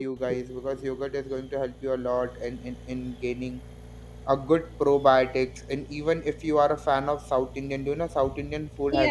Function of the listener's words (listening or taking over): taking over